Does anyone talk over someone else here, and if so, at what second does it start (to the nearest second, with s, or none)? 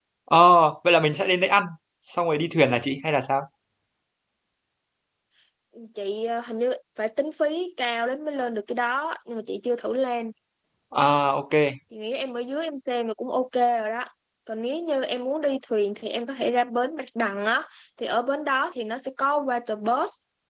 none